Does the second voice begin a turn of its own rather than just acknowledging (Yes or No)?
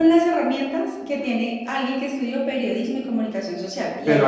Yes